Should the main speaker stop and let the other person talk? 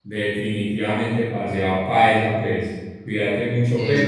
No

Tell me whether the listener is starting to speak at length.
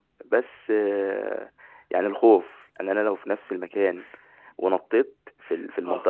No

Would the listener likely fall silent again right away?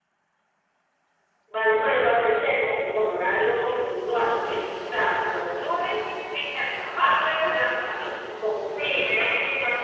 No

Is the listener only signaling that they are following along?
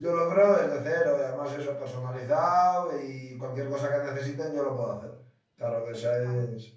Yes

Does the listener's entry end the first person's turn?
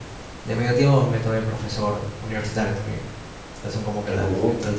No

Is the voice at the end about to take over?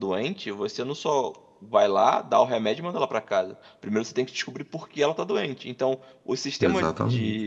No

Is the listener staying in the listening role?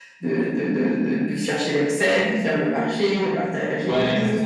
No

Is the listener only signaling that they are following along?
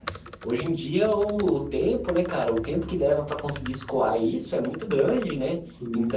Yes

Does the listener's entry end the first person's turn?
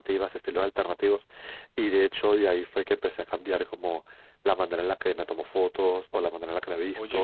No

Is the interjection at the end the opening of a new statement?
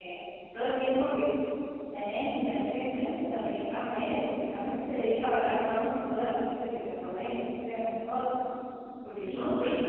Yes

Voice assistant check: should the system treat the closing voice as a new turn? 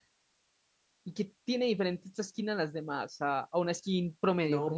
Yes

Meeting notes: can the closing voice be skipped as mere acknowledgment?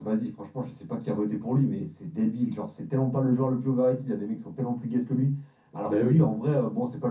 Yes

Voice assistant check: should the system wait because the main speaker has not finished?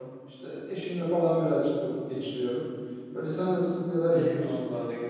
No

